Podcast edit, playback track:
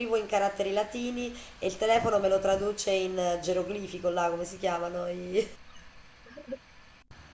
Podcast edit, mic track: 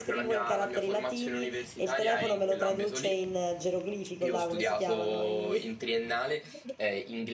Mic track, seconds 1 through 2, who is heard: both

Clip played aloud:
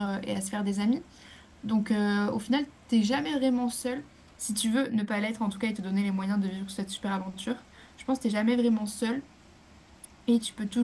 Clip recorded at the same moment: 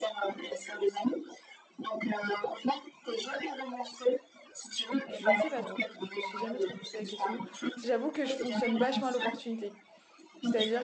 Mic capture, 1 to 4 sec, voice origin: echo only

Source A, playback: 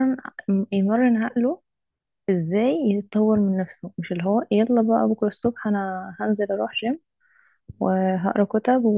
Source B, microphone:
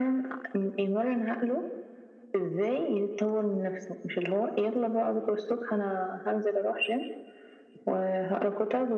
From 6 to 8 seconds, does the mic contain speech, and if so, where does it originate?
echo only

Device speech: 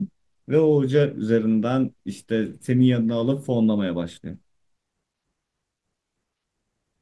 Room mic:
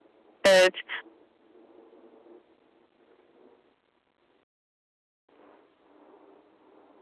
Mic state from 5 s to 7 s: neither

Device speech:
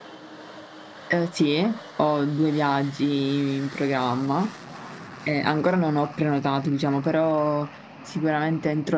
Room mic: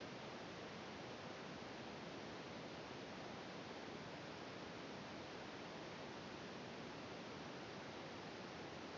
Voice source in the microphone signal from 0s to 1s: neither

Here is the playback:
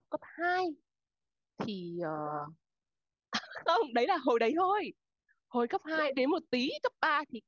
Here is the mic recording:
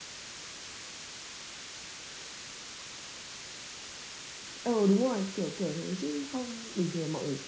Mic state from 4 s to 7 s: user only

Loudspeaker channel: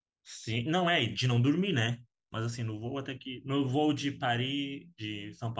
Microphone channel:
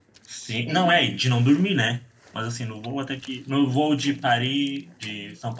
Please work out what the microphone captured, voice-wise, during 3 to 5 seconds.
echo only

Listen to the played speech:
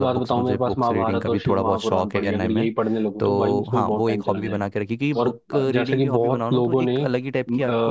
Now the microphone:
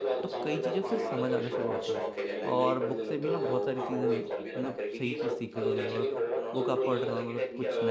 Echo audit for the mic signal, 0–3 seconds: both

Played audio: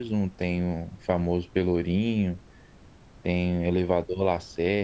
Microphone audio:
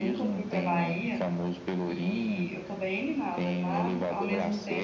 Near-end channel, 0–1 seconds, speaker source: both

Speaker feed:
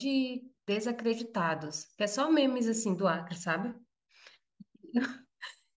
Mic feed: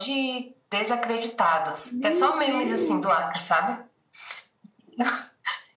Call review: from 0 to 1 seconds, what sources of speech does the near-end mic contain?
echo only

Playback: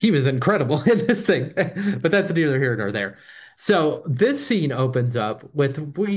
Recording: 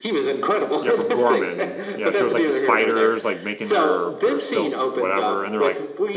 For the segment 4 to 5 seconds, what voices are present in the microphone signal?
both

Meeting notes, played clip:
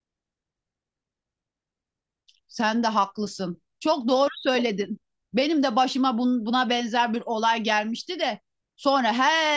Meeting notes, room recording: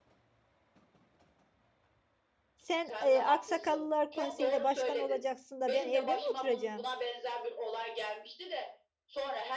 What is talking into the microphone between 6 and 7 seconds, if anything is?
both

